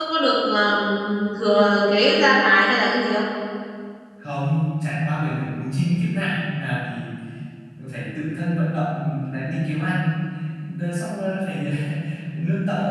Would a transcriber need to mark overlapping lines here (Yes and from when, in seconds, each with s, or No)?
No